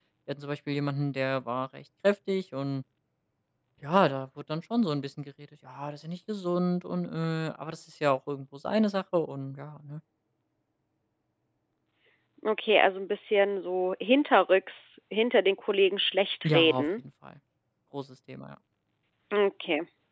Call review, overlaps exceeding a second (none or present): none